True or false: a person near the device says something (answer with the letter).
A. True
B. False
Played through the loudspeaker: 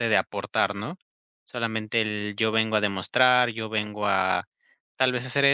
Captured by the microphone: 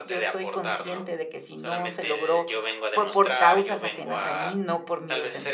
A